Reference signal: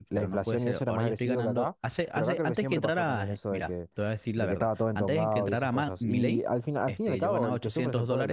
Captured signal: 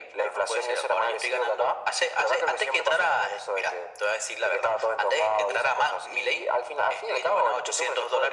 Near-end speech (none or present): none